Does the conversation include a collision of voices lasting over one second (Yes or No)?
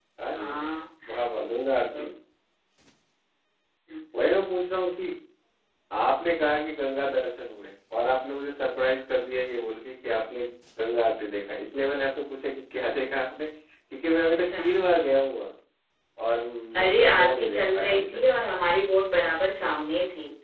Yes